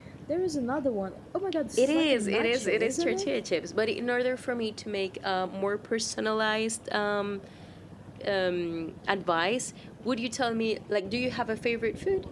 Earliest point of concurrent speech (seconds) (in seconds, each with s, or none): 1.8 s